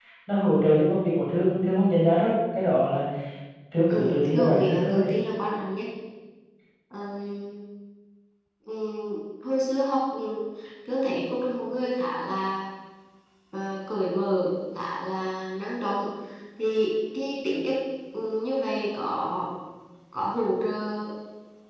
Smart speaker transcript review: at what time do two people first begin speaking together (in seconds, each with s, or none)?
3.9 s